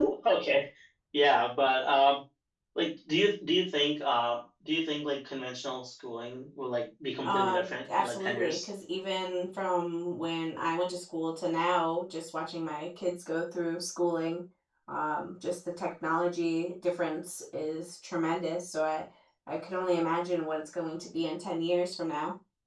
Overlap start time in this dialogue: 7.2 s

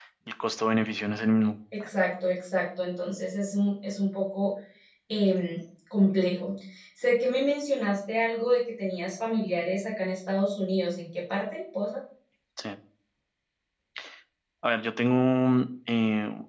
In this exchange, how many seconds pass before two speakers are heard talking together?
none

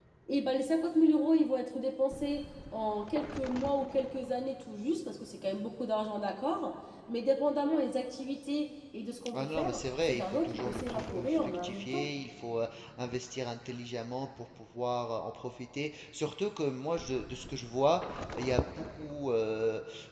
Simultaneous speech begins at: 9.3 s

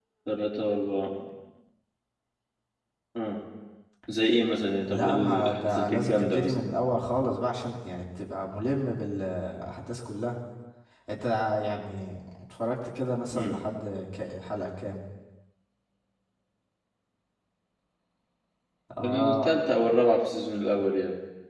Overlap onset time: 4.9 s

